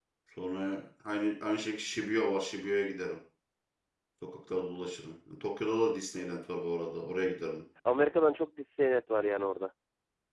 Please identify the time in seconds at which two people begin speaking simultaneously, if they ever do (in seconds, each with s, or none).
none